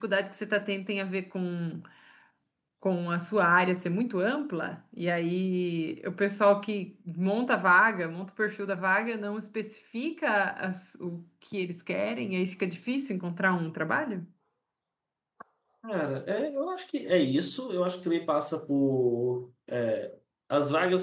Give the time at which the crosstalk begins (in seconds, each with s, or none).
none